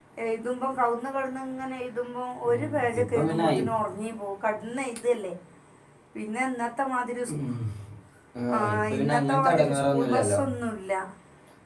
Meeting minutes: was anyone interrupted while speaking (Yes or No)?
Yes